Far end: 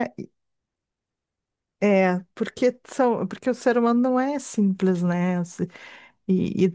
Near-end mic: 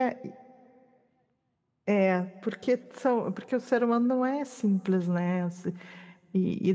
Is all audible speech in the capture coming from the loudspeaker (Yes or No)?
Yes